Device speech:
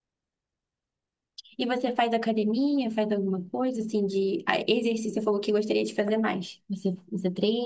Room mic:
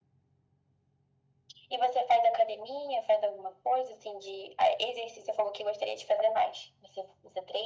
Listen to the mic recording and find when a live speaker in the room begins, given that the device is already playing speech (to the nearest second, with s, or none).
none